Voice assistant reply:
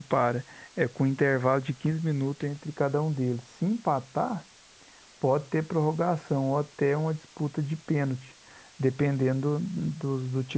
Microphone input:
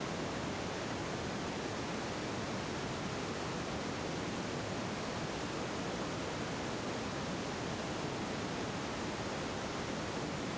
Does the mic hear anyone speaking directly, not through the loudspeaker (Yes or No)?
No